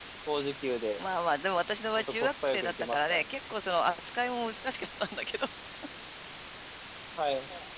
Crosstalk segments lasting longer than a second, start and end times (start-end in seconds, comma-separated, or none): 2.0-3.2